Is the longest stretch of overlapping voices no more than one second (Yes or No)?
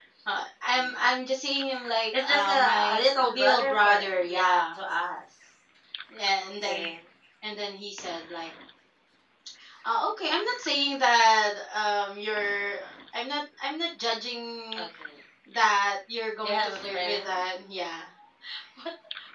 No